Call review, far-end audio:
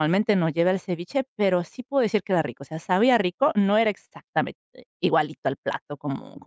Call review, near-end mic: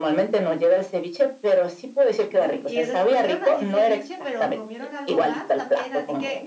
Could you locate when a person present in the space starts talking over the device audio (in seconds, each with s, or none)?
2.2 s